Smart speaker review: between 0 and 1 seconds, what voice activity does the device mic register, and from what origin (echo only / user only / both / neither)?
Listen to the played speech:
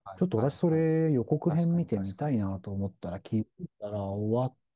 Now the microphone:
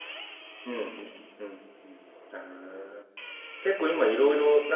user only